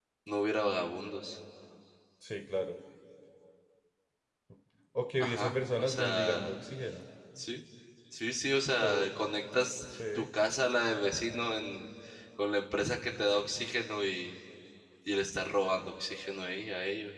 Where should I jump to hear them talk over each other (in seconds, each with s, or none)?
5.2 s